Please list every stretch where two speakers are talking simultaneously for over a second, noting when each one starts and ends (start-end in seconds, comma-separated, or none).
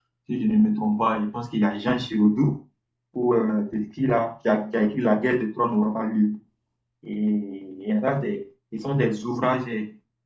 none